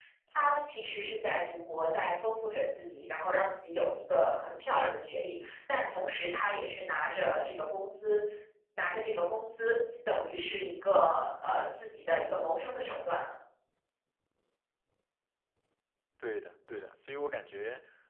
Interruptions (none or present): none